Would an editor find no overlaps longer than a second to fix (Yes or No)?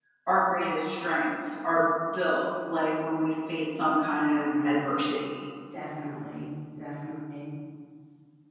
Yes